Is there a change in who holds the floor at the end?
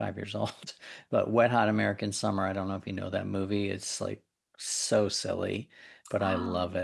No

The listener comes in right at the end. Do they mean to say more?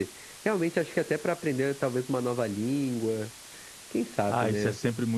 Yes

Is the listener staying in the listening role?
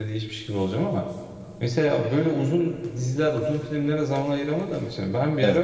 Yes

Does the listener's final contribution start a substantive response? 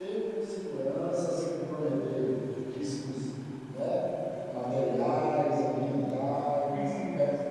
No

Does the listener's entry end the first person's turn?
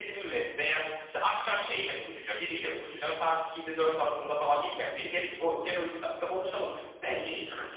Yes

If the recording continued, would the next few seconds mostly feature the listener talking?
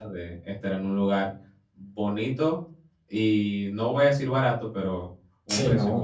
Yes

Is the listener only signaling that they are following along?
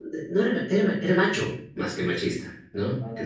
Yes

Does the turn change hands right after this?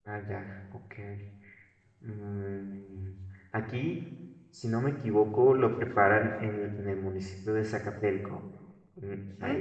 No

